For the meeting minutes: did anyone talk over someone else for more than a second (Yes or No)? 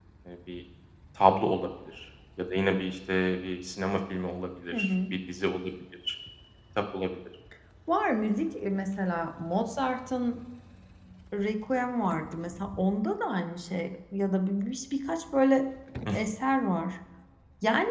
No